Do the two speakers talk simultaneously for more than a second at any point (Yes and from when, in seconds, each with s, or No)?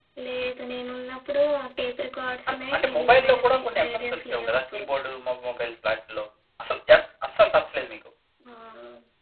Yes, from 2.5 s